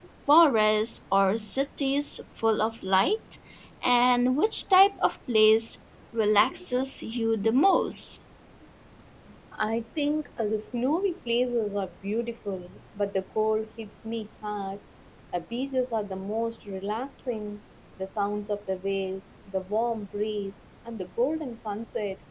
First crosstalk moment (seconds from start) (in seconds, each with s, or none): none